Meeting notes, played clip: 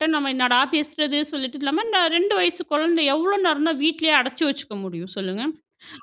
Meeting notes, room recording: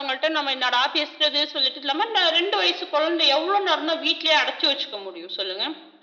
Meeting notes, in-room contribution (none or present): none